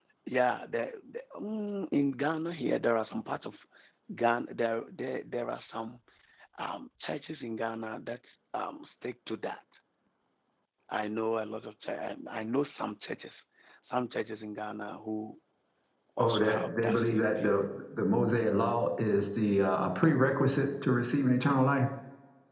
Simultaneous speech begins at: 16 s

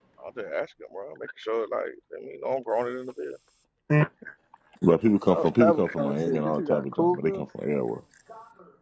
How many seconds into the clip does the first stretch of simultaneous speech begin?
5 s

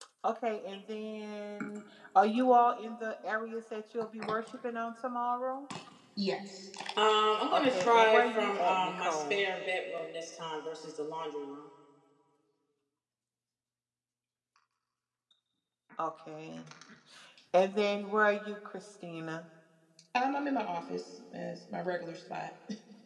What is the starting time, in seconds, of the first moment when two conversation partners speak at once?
8 s

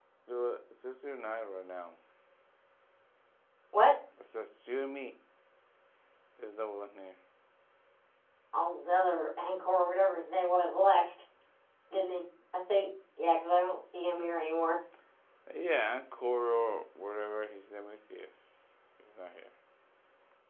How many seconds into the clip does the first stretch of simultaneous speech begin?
none

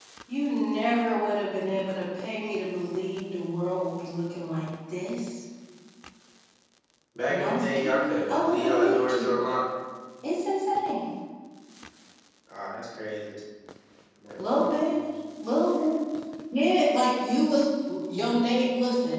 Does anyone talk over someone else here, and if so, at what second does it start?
7 s

